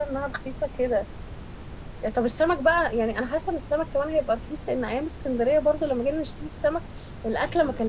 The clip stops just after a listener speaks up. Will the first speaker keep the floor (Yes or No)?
Yes